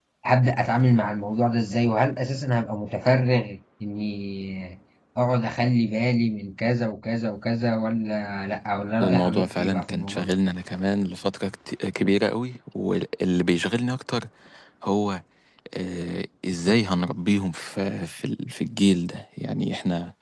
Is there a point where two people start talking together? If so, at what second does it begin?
9.0 s

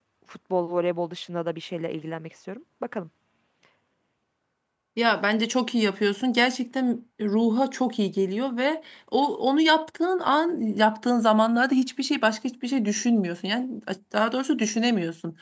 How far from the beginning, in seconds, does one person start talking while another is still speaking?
none

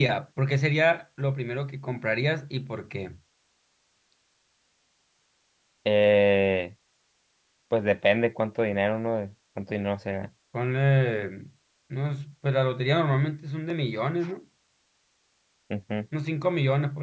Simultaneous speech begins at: none

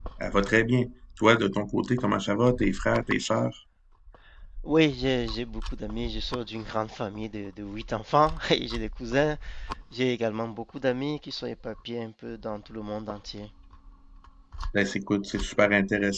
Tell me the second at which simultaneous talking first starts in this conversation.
none

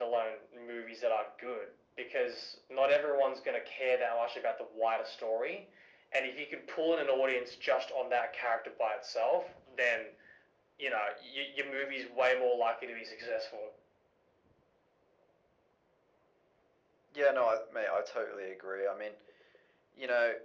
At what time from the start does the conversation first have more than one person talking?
none

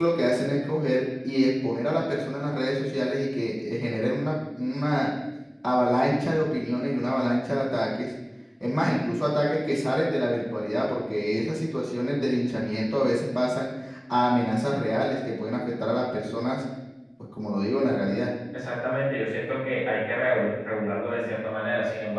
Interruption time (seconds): none

